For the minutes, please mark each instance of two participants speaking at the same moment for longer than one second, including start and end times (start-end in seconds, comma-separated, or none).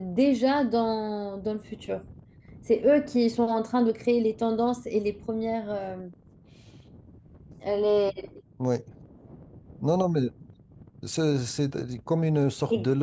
none